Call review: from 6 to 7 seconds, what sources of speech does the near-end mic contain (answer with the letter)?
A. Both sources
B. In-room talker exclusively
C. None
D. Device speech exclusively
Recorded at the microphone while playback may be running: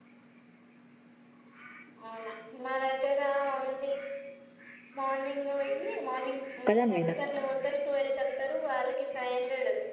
A